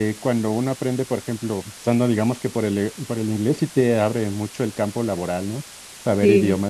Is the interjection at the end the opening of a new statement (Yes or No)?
Yes